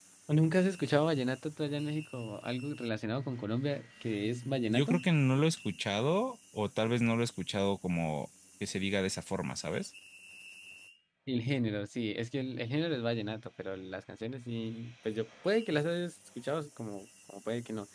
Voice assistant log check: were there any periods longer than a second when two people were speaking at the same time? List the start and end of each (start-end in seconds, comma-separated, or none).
none